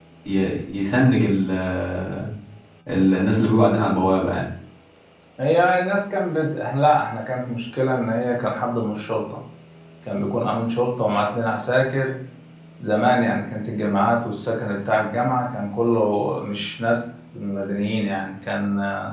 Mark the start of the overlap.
none

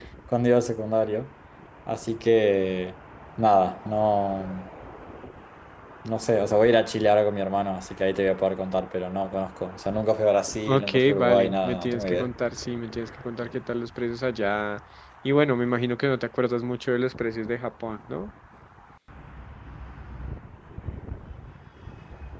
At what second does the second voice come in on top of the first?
11 s

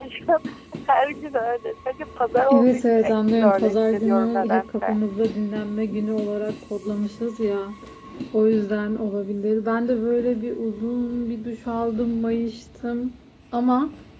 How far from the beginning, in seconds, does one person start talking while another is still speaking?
3 s

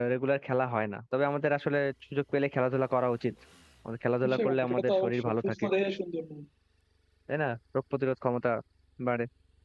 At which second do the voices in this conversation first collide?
4 s

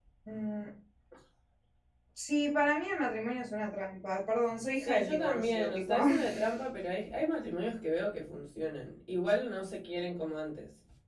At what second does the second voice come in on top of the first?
5 s

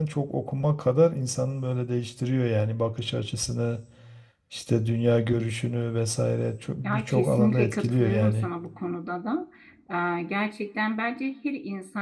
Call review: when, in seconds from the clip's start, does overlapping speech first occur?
7 s

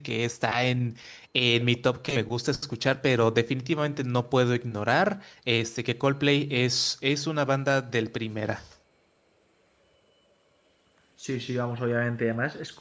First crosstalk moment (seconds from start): none

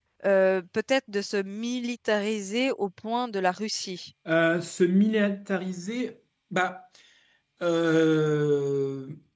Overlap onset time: none

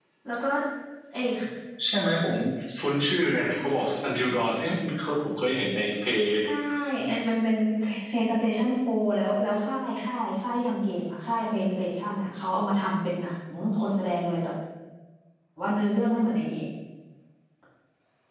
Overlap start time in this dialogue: none

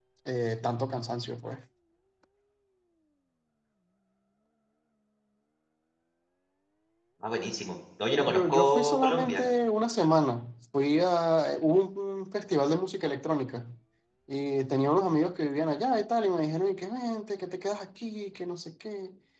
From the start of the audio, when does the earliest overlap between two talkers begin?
8 s

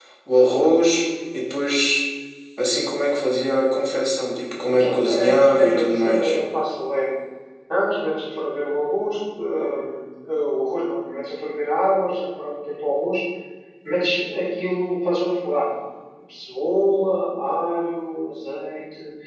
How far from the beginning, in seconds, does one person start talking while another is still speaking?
5 s

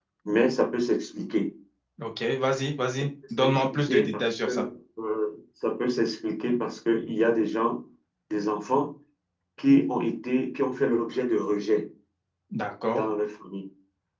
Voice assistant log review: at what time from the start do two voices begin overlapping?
3 s

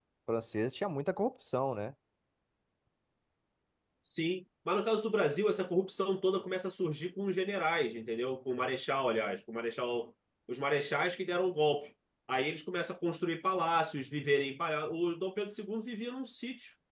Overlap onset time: none

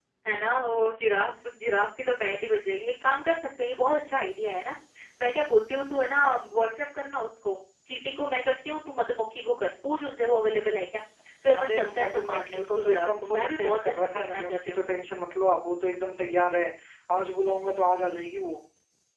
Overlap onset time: 12 s

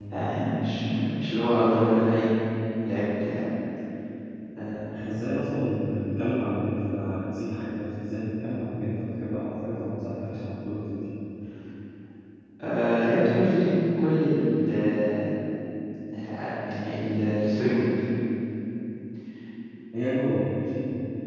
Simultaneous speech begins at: none

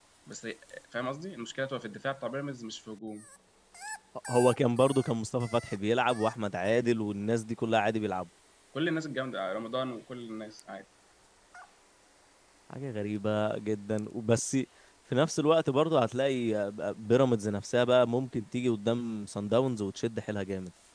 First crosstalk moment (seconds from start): none

